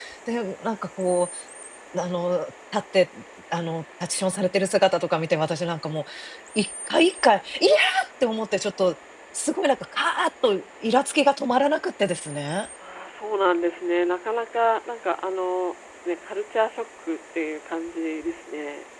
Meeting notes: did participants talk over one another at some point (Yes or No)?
No